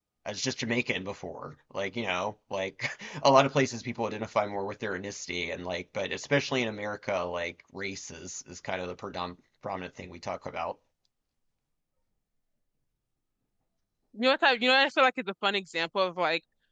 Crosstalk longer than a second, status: none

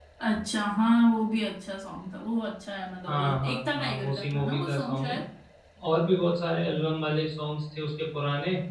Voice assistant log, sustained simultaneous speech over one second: present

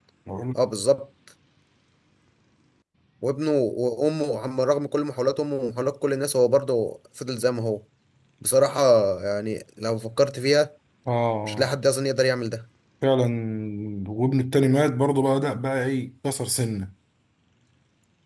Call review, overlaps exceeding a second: none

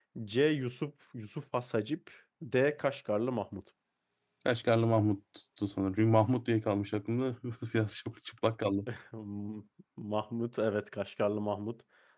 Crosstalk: none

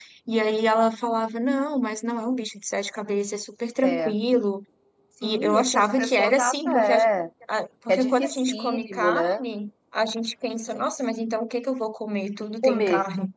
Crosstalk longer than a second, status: present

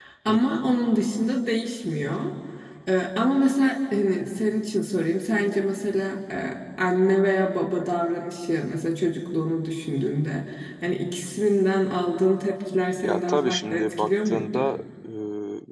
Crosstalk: present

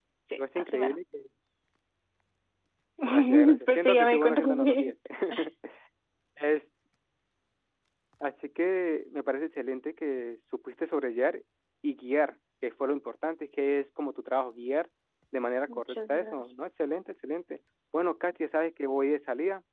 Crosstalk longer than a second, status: present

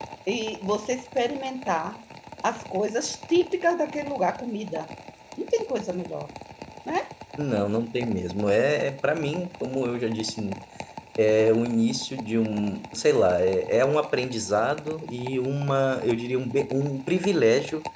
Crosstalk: none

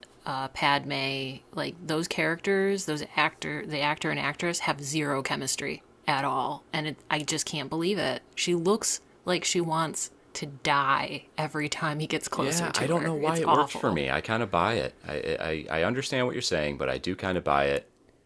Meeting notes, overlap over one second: present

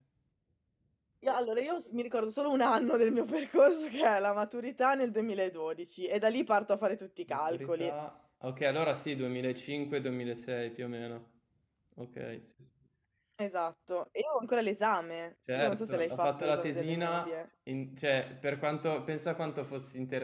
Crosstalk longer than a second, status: present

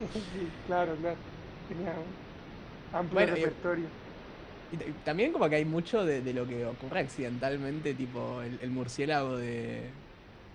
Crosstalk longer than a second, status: none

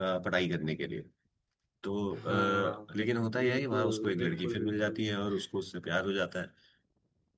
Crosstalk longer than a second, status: present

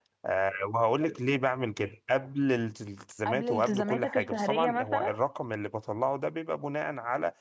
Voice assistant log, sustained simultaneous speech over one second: present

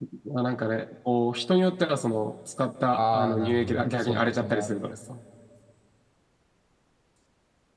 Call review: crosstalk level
present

